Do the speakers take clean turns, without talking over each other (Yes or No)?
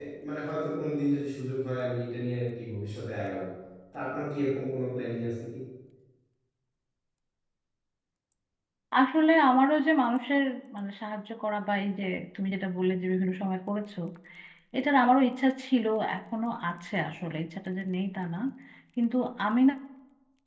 Yes